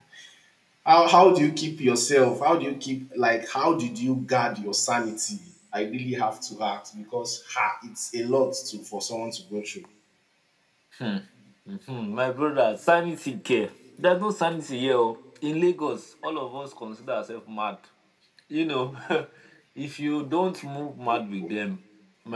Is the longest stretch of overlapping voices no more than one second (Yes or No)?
Yes